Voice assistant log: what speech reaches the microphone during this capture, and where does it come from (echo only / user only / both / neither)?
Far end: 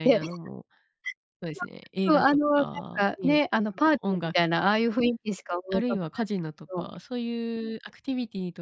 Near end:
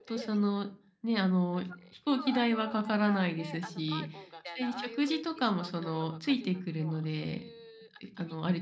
both